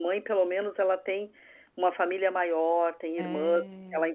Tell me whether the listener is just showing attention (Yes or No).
Yes